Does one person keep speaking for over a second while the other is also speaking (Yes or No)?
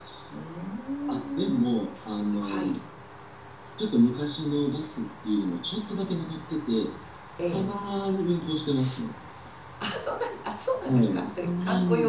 Yes